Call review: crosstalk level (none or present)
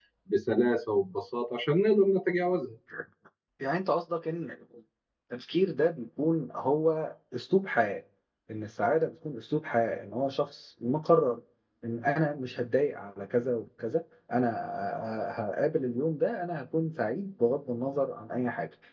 none